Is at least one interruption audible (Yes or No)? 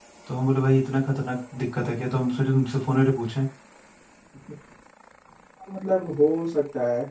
No